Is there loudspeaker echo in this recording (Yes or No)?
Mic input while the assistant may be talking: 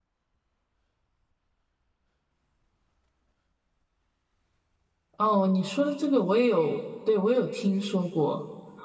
No